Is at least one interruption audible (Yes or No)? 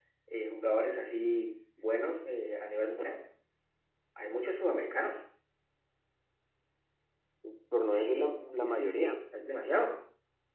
Yes